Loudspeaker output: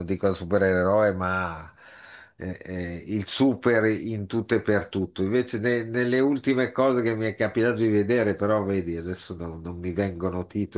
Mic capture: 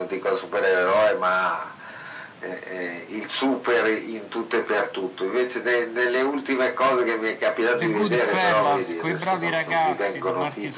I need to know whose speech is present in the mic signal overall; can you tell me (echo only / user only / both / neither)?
both